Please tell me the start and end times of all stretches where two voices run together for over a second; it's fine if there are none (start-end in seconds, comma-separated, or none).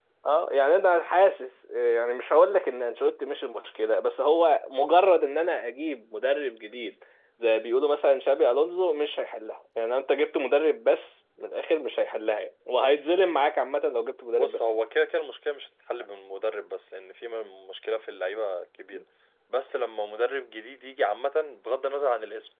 none